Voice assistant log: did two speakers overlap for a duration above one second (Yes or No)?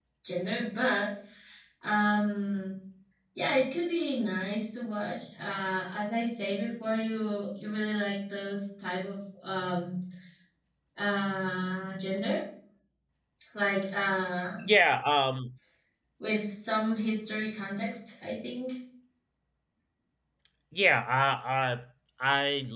No